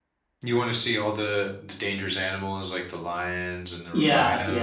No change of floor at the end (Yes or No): No